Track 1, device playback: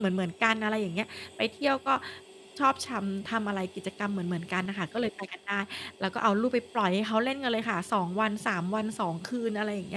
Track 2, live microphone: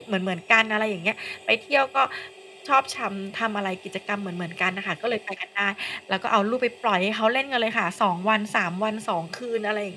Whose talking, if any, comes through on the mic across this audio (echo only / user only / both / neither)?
echo only